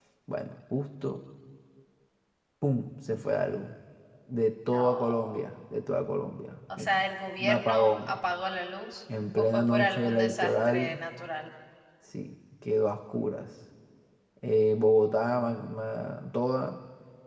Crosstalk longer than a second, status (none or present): present